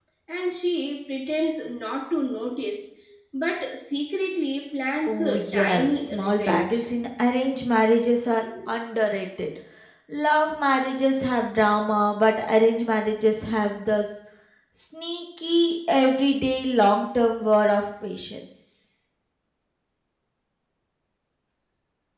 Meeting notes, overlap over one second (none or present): present